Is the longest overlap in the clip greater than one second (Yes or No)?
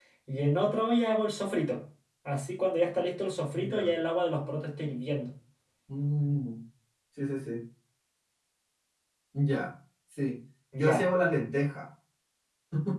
No